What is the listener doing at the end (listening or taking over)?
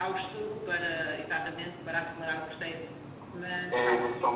taking over